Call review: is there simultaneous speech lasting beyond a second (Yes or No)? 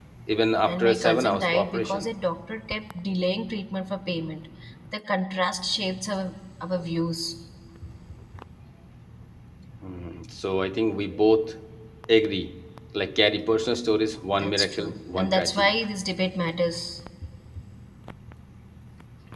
Yes